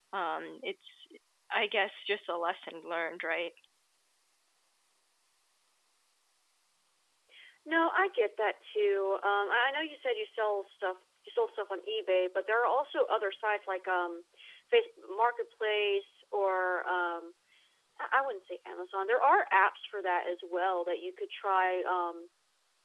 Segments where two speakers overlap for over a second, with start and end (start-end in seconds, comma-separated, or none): none